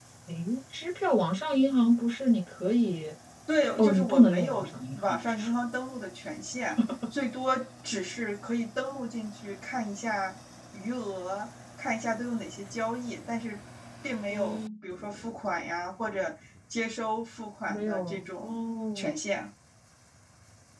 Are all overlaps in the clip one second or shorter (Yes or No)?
No